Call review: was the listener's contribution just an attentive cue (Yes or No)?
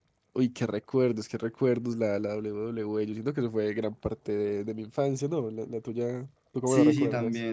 No